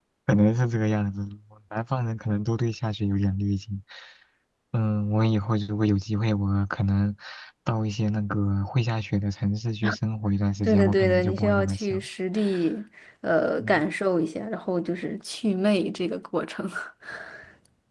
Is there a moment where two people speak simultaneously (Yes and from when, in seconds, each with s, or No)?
Yes, from 10.6 s